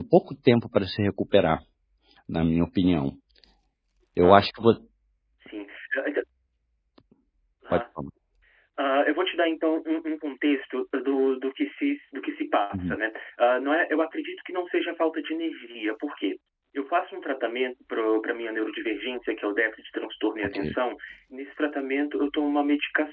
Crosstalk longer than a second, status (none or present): none